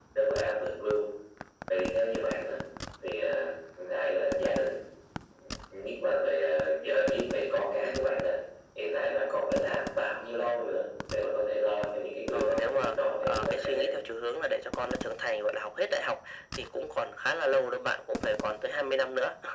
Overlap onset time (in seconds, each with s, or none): 12.3 s